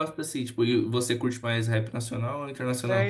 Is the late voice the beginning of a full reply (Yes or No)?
Yes